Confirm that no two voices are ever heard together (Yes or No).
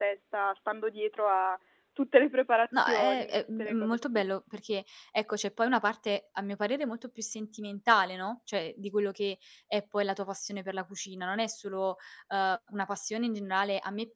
No